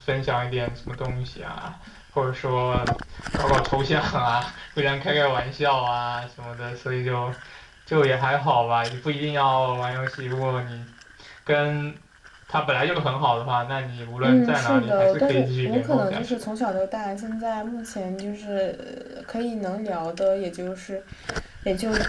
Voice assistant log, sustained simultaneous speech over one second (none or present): present